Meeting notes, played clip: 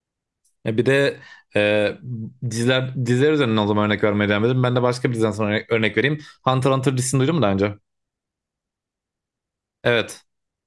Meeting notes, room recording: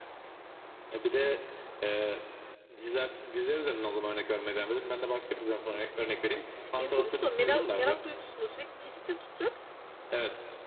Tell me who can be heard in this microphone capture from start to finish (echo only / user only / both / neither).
both